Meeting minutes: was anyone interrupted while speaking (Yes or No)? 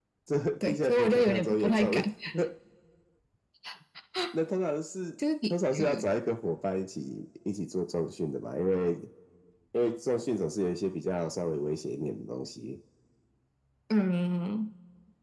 Yes